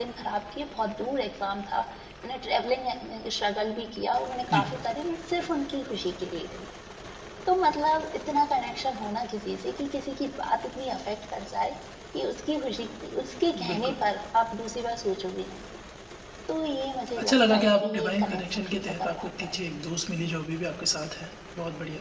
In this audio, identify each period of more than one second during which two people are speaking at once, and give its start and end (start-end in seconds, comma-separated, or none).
17.2-19.5